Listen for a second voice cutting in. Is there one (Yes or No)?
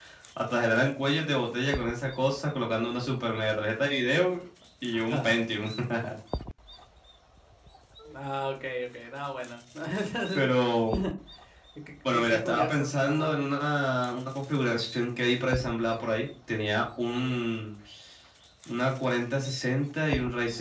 Yes